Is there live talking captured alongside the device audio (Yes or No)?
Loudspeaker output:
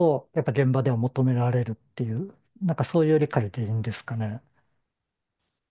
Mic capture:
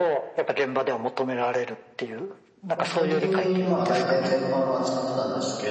Yes